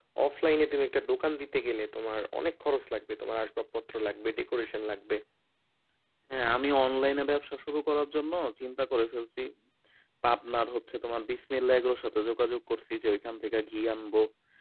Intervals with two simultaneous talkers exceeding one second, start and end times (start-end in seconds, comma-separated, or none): none